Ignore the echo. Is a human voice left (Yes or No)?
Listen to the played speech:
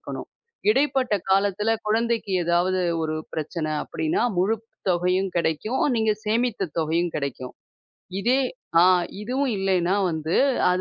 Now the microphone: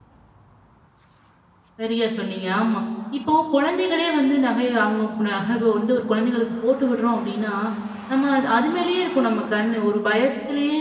Yes